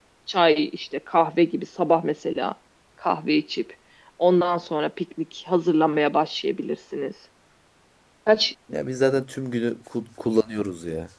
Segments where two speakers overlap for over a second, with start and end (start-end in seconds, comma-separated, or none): none